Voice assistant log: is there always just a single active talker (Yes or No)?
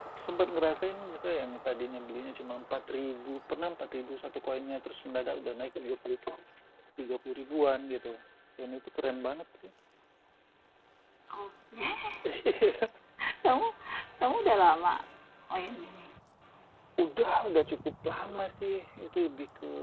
Yes